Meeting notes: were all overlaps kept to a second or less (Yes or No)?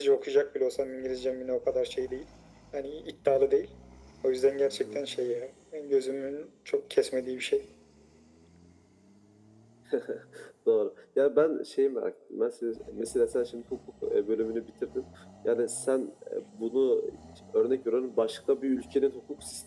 Yes